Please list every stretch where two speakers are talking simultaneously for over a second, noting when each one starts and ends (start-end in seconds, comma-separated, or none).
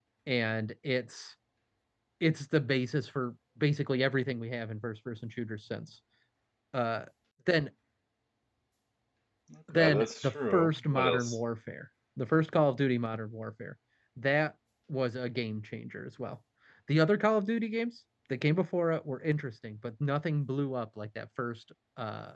9.8-11.4